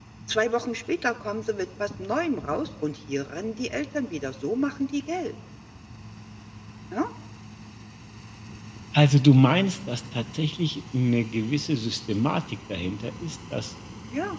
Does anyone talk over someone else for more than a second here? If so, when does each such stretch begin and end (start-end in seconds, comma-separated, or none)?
none